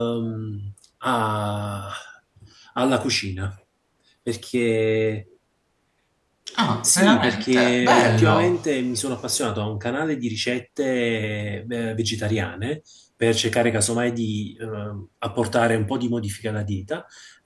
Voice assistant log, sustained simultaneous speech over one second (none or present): present